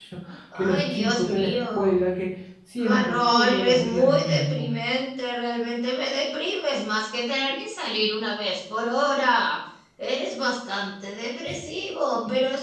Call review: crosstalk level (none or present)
present